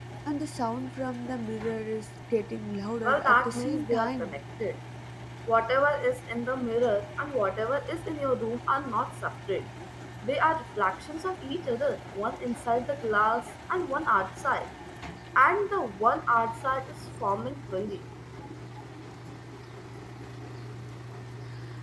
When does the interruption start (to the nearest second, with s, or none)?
3 s